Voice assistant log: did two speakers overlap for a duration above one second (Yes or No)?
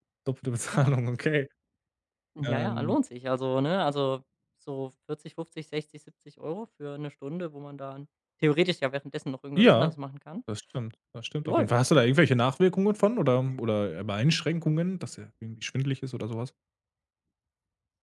No